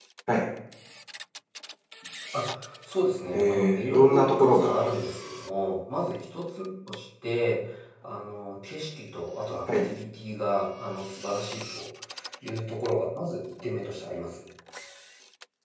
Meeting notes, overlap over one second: present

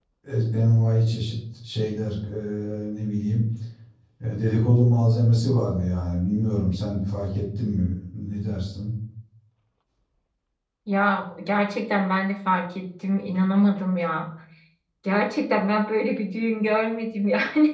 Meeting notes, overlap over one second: none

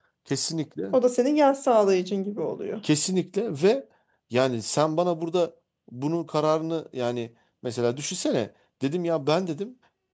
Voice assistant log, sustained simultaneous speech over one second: none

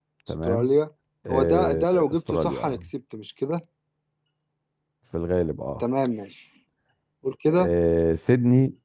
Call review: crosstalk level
present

